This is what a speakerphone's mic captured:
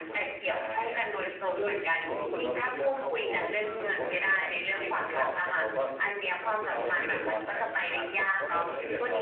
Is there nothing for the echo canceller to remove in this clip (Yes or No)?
No